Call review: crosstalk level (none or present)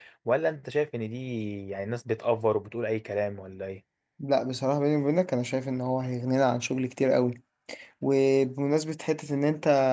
none